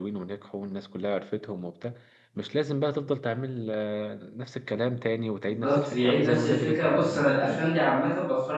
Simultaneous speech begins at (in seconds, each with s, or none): 5.6 s